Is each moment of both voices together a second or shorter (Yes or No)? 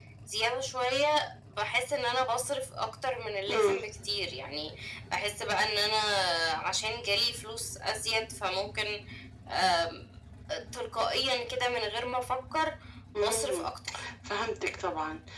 Yes